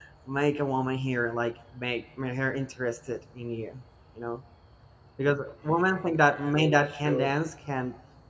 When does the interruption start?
6 s

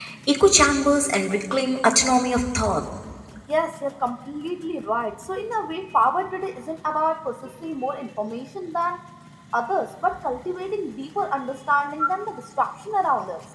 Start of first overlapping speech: none

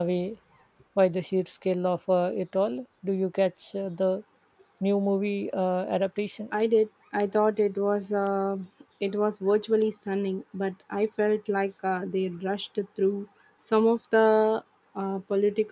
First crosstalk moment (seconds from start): none

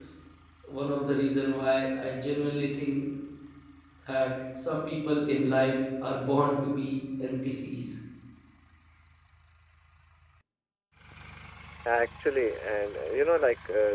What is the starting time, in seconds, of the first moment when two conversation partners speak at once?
none

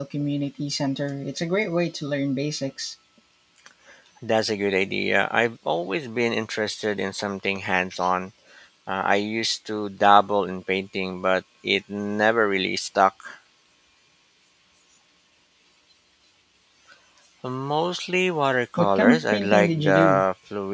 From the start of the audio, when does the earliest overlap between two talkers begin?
19 s

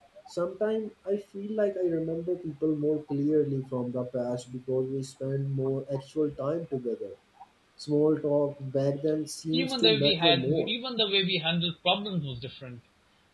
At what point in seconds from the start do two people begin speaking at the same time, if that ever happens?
10 s

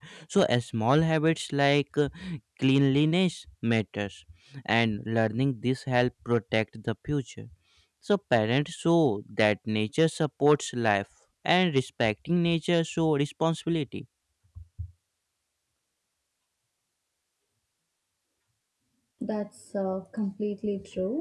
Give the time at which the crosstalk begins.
none

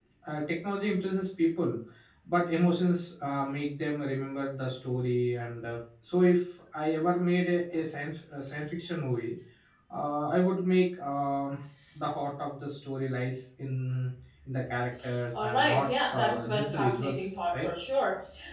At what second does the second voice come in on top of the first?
15 s

